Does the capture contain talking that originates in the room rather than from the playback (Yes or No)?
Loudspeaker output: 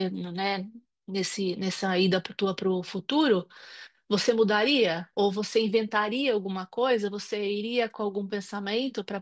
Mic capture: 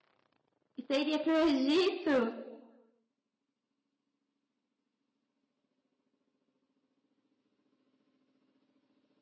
Yes